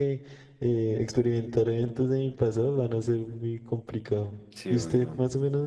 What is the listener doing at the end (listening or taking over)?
listening